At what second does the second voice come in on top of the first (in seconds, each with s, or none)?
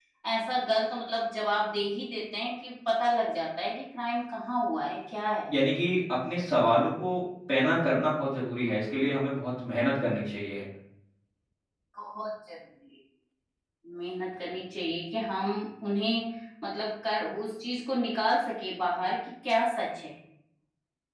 none